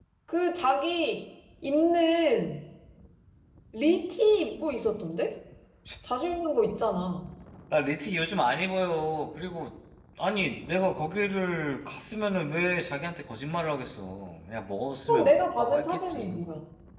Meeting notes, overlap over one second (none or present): present